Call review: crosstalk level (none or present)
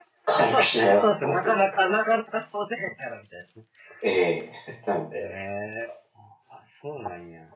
present